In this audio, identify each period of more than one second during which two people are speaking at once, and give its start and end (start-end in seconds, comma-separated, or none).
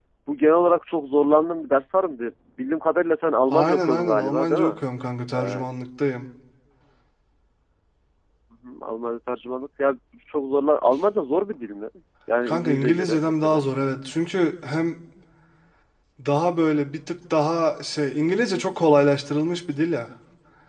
3.5-4.8, 12.4-13.7